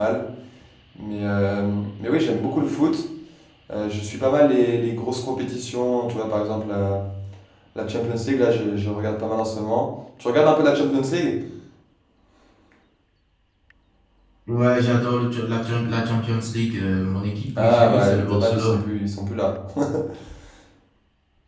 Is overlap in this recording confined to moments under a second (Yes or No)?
No